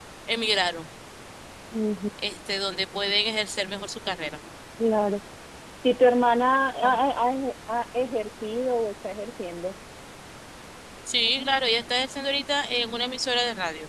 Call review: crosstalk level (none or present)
none